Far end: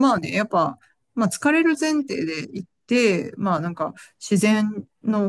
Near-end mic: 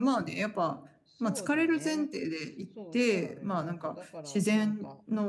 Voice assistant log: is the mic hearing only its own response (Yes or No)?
No